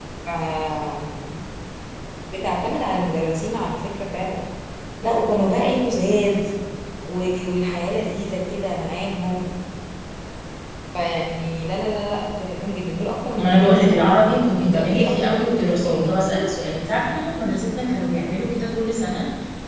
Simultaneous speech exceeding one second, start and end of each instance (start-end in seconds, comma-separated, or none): 13.4-16.2